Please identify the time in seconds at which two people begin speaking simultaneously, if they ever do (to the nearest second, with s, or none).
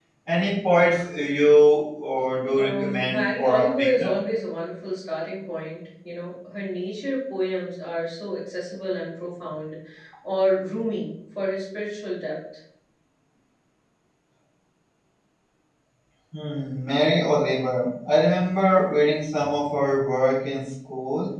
3 s